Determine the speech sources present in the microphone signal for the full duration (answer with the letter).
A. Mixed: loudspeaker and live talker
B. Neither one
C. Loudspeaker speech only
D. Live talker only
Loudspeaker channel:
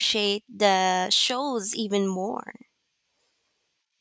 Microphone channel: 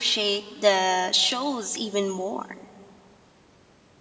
C